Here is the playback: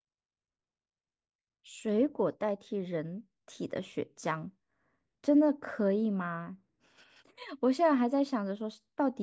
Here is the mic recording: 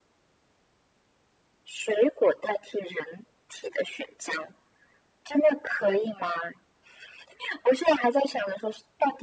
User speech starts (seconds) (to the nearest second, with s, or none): none